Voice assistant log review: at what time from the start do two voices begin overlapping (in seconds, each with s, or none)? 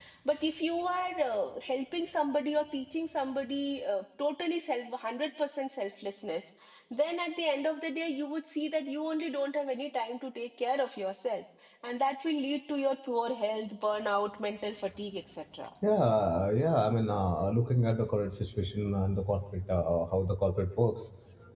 none